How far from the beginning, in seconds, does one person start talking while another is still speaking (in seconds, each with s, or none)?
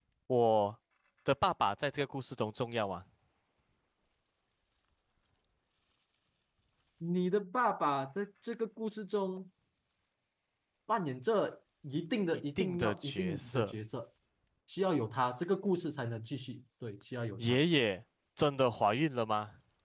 12.6 s